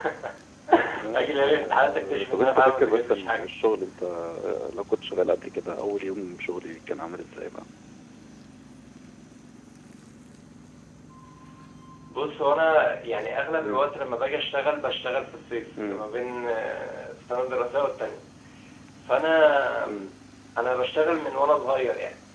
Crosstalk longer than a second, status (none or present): present